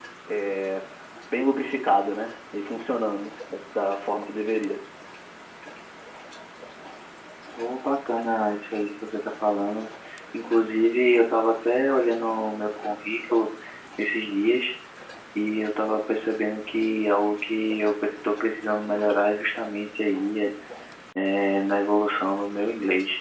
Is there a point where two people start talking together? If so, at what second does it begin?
none

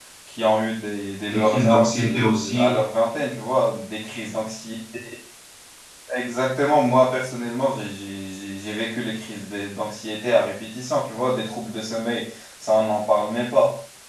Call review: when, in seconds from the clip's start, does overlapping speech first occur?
1.3 s

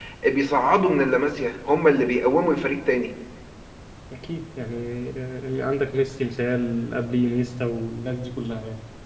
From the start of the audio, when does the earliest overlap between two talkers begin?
none

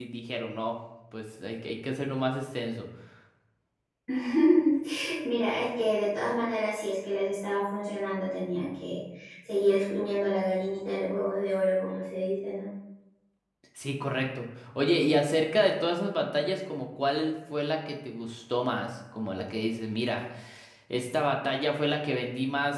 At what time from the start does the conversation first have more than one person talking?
none

